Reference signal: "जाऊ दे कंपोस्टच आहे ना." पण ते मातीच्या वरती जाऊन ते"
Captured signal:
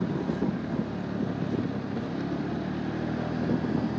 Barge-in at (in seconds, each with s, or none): none